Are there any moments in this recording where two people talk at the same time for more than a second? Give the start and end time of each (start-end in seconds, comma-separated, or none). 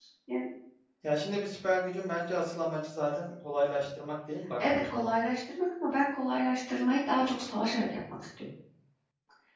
none